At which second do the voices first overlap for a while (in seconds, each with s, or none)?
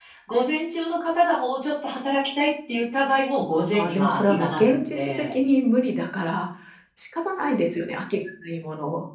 3.7 s